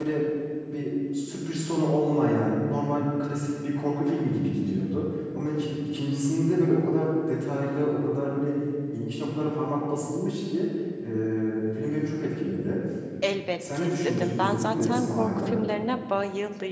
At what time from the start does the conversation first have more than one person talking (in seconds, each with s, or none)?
13.7 s